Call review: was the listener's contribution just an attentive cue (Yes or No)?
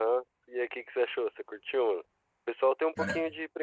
Yes